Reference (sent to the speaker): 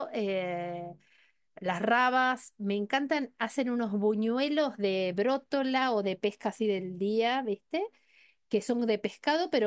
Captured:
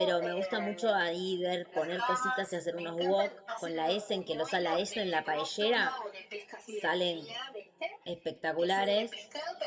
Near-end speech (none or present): present